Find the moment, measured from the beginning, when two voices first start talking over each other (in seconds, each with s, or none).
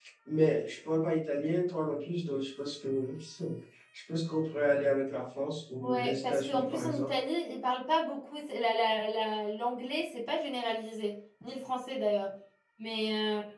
5.8 s